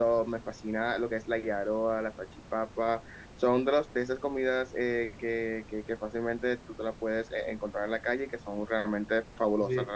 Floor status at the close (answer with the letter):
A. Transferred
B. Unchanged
B